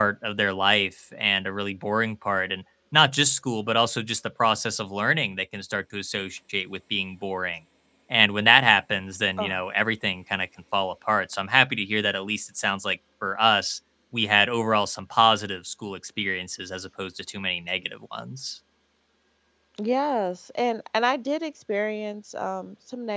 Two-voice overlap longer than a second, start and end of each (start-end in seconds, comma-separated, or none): none